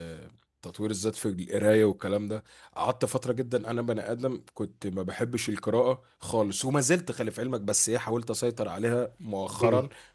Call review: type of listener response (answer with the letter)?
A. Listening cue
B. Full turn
A